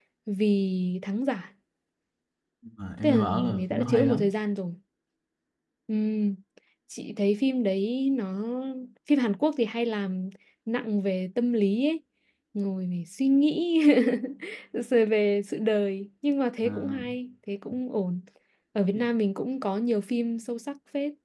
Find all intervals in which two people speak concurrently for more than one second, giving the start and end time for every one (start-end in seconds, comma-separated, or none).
3.0-4.3